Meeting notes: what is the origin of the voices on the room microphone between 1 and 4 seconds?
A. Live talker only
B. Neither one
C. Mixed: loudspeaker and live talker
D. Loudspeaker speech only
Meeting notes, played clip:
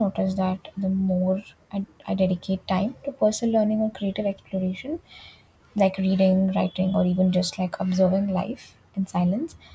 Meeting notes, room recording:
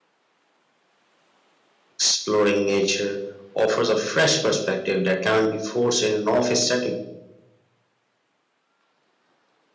A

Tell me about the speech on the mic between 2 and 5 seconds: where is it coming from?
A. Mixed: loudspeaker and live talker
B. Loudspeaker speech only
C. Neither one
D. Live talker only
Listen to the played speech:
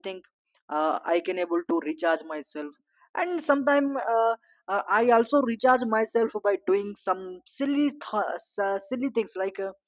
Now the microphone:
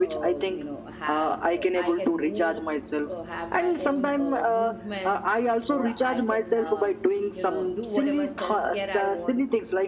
A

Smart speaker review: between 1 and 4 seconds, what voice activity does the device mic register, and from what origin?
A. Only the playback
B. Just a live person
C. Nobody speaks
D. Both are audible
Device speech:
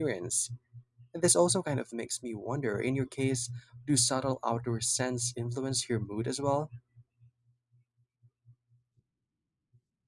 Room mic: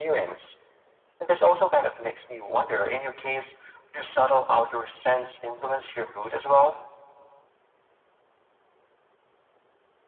A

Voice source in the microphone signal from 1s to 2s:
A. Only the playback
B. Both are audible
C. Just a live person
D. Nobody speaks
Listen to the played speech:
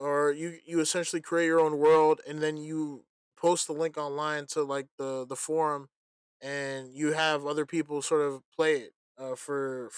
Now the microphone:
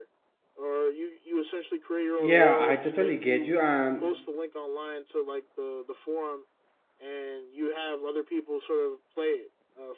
A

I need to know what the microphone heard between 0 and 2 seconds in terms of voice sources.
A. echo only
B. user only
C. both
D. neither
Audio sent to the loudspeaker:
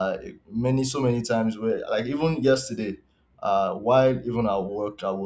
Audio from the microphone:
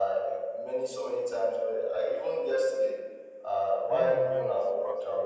A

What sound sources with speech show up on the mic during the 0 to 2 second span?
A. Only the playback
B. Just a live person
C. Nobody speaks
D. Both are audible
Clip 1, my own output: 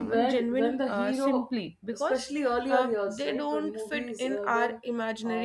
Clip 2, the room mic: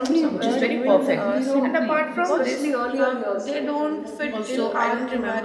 D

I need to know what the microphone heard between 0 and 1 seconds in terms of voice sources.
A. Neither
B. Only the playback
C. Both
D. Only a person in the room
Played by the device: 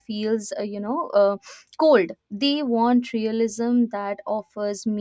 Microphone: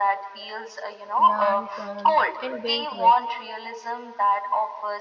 B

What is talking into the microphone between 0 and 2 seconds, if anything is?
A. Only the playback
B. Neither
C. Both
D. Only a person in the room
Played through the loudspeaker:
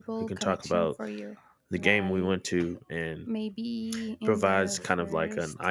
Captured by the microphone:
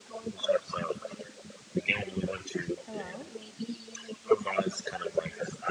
A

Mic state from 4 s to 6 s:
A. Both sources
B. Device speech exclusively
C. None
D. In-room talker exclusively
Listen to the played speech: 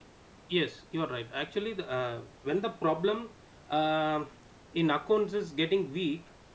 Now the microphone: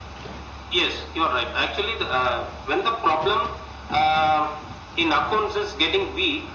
B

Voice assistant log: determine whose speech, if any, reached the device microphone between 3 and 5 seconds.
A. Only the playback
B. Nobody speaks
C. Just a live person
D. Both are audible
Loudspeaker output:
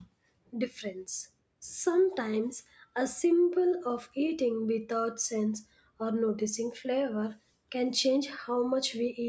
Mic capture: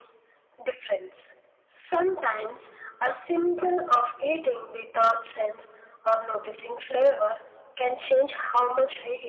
A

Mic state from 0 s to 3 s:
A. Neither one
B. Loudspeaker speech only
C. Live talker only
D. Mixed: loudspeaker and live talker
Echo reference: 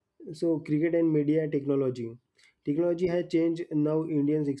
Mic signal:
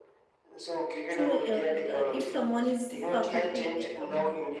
D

